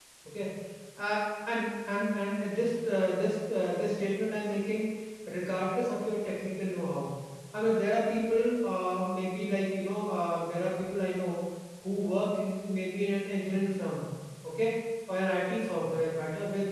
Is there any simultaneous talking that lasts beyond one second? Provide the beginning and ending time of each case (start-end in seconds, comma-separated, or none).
none